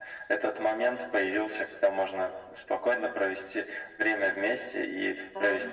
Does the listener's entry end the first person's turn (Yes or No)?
No